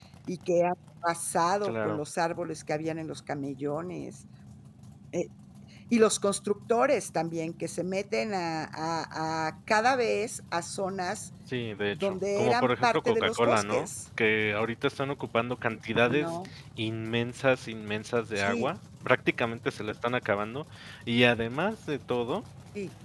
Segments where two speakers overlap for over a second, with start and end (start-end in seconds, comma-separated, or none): 11.9-13.9